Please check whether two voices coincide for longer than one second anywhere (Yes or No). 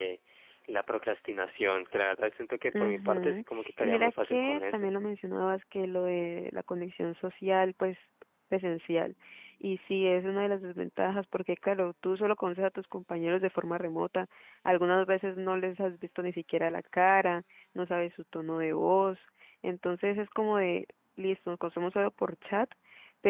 Yes